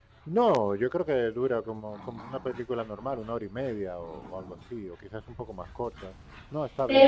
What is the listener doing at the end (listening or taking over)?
taking over